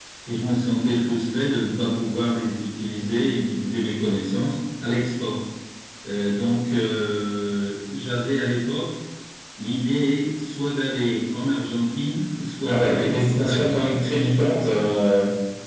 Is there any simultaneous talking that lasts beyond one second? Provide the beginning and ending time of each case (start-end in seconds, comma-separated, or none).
12.6-13.9